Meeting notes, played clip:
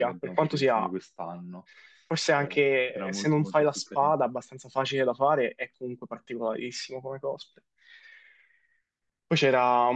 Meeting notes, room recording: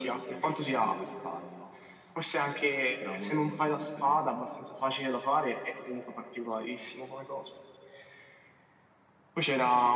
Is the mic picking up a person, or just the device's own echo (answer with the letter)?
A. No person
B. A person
A